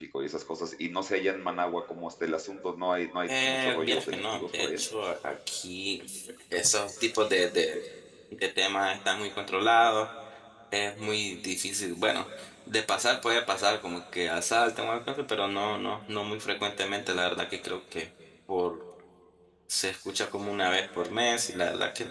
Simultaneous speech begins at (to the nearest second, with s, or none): 3 s